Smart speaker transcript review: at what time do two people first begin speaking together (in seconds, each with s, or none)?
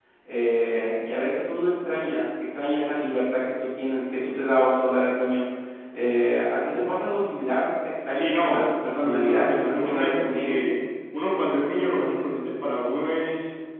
8.2 s